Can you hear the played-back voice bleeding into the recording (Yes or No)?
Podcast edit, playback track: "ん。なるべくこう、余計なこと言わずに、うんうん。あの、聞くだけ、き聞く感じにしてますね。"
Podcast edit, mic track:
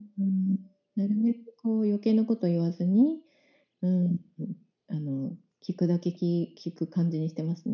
Yes